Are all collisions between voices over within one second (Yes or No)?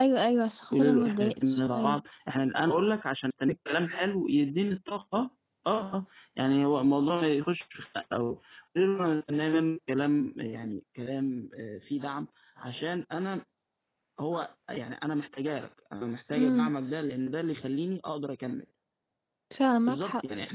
No